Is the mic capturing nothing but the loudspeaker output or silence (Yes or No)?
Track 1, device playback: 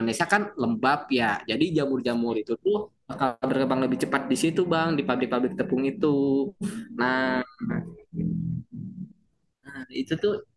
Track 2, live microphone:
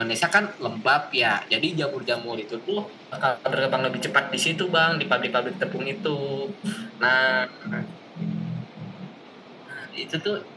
Yes